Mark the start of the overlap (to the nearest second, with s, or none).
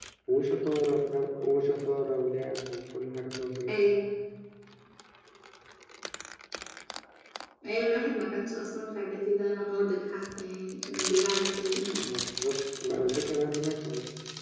none